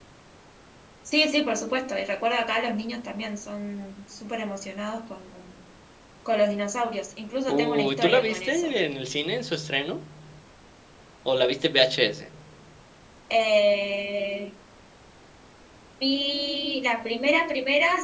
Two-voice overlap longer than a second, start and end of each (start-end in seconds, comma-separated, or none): 7.5-8.8